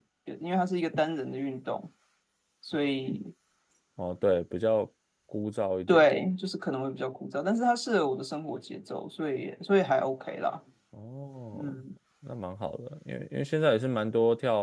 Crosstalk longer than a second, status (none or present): none